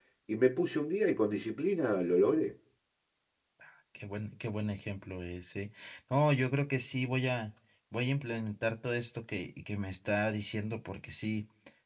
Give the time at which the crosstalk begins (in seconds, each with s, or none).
none